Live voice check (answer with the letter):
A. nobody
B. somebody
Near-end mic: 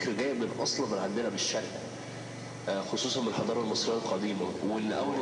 B